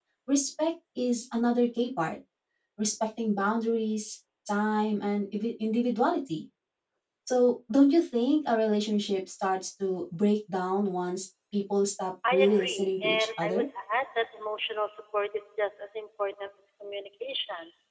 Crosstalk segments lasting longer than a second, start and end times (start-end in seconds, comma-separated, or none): 12.3-13.7